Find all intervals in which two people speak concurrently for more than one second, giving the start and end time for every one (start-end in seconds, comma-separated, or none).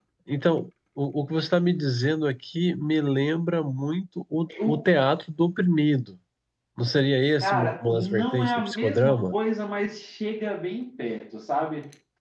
7.4-9.3